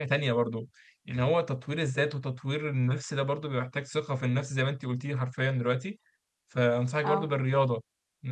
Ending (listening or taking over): listening